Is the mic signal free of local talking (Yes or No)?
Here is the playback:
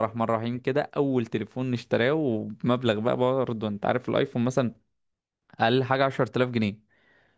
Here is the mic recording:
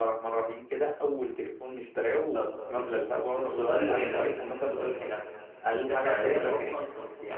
No